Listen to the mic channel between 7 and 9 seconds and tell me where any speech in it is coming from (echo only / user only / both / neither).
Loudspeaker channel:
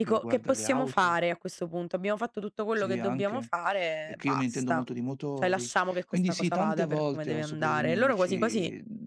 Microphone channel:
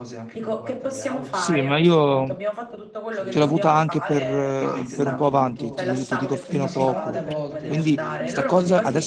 both